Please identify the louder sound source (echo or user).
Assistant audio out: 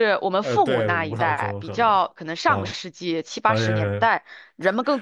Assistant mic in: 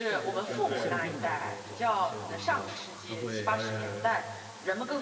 echo